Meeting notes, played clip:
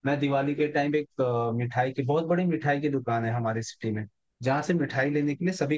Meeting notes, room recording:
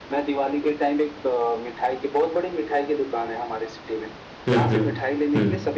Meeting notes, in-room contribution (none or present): present